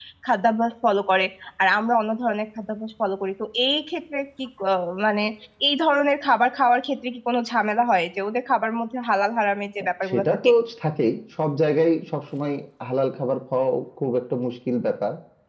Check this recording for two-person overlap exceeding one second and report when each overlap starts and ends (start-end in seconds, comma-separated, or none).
none